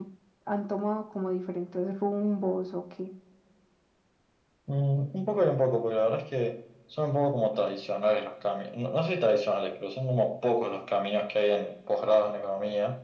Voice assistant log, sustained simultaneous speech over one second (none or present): none